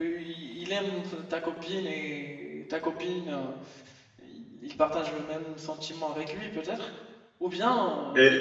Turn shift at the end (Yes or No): Yes